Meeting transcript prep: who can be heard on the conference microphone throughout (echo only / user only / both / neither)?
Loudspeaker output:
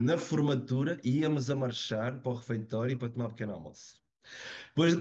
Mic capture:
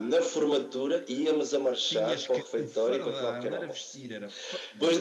both